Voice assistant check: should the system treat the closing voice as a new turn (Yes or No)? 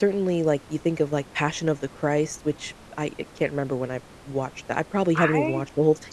Yes